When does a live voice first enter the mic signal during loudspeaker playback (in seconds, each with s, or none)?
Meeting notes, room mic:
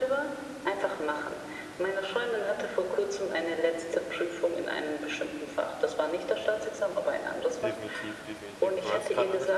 7.6 s